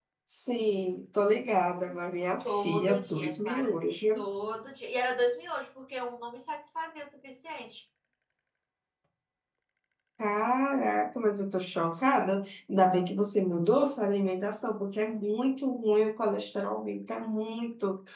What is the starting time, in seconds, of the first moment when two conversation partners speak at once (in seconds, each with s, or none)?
2.5 s